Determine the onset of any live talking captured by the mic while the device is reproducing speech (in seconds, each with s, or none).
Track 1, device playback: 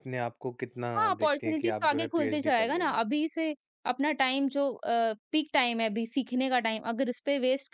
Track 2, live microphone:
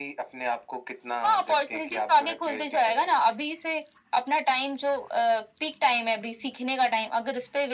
none